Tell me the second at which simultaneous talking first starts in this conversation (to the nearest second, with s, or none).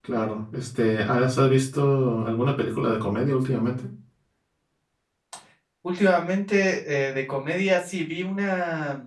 none